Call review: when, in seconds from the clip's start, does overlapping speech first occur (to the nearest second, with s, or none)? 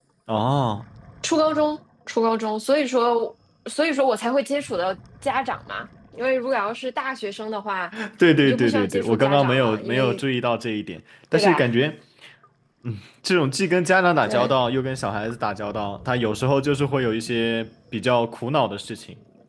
8 s